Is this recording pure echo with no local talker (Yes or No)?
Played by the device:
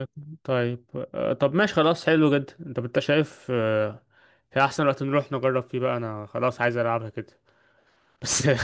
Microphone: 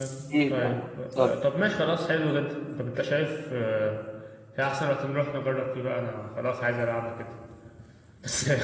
No